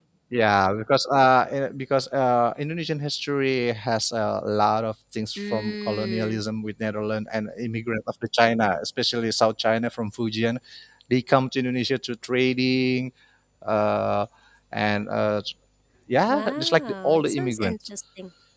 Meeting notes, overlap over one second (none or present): present